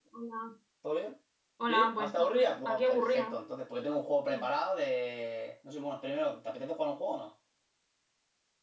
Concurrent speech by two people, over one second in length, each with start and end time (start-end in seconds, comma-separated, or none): 1.7-3.4